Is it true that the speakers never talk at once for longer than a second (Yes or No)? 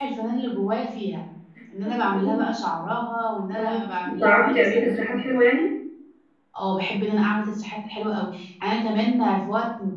No